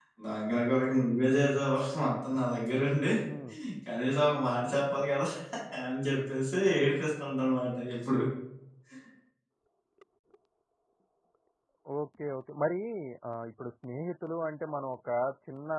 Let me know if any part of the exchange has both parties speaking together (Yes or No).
No